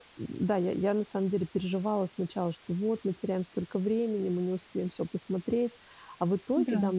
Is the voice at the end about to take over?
No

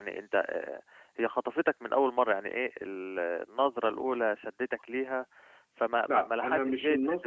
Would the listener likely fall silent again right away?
No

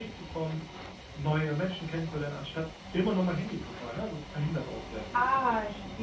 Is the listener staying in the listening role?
No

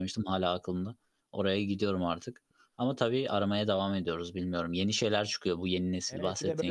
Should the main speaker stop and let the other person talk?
Yes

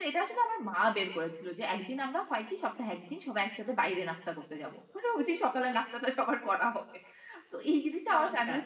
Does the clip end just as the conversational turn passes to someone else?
No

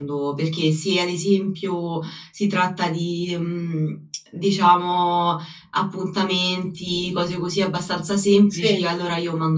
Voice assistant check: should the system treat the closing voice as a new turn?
No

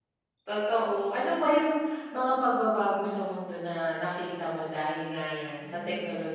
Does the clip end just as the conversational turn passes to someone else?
Yes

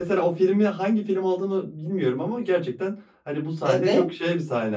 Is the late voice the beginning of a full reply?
No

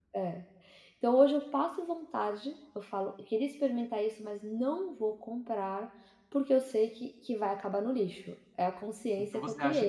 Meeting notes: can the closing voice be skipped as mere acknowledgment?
No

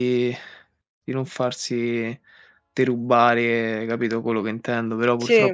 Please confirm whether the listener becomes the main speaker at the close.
No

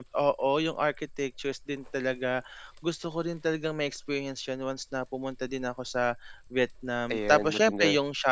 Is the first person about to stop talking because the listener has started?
No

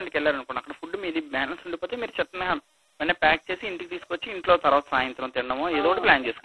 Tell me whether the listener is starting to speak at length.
Yes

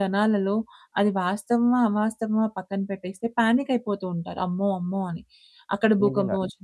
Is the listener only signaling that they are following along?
Yes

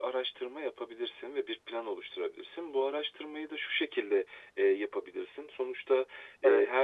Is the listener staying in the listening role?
Yes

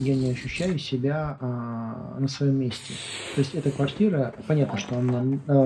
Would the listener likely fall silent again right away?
Yes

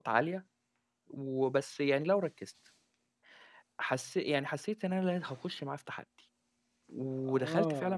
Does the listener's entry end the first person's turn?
Yes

